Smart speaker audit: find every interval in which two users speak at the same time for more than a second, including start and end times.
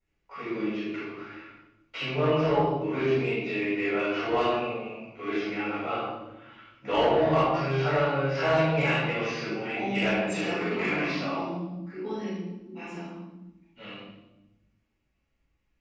9.8-11.4

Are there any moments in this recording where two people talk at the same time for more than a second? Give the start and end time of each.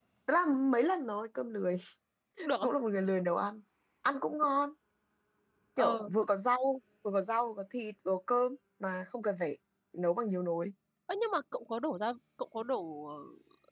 none

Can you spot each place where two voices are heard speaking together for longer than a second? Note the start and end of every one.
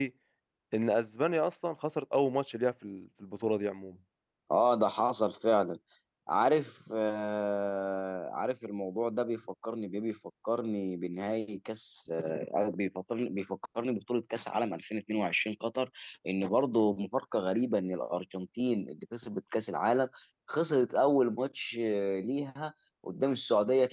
none

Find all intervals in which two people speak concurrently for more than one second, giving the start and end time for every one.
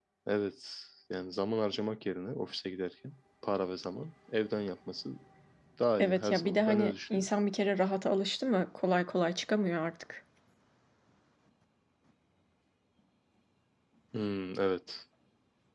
6.0-7.3

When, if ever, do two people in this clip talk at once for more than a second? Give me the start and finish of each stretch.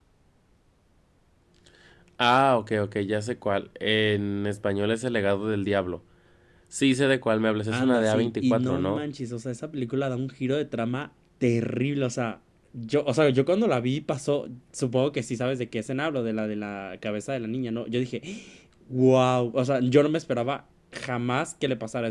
7.7-9.1

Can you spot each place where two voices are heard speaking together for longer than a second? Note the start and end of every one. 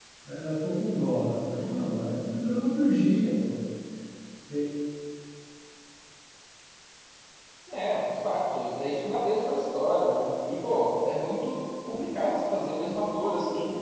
none

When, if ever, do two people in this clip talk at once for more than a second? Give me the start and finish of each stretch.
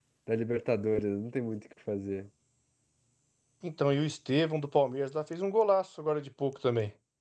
none

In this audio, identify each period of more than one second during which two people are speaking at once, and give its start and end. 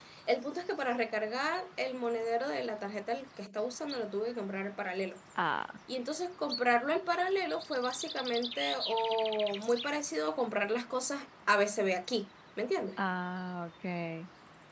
none

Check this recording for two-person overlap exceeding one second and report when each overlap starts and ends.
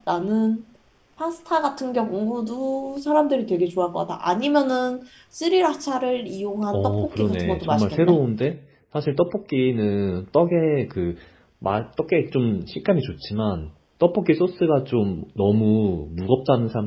6.7-8.2

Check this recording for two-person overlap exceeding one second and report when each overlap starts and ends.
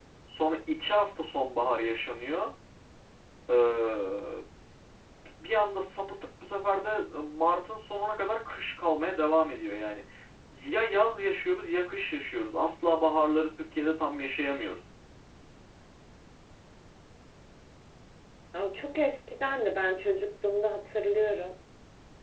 none

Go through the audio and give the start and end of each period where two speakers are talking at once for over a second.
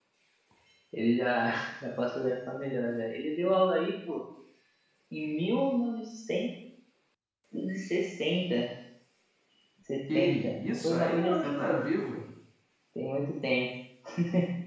10.1-11.8

